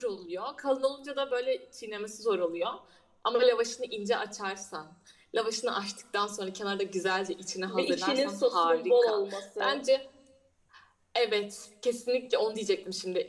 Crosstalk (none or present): present